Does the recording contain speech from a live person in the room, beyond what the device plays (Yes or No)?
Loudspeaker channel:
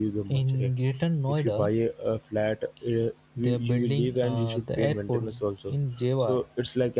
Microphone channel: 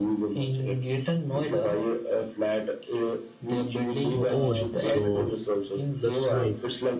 Yes